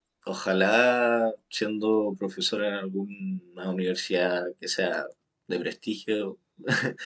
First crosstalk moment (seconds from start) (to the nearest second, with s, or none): none